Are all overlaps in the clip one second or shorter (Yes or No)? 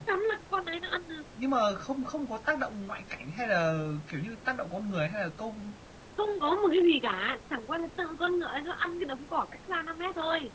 Yes